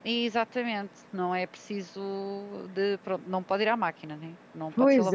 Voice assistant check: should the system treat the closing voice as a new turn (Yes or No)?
Yes